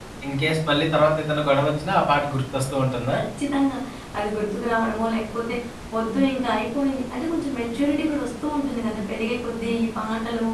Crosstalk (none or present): none